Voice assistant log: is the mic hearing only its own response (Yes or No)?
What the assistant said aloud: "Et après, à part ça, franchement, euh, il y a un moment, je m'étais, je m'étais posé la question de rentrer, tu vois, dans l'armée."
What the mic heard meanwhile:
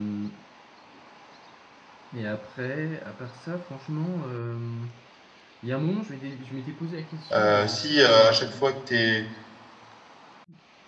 No